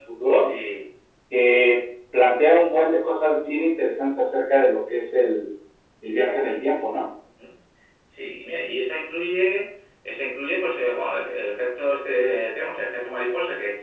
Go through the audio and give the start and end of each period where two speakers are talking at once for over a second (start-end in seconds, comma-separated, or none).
none